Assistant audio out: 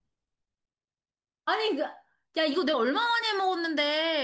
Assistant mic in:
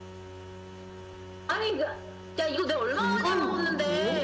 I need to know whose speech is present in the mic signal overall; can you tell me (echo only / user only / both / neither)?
both